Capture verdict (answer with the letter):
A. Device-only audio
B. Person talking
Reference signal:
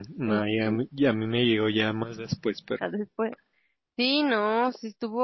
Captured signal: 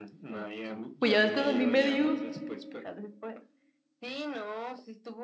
B